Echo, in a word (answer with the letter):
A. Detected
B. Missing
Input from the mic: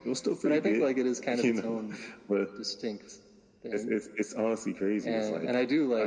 A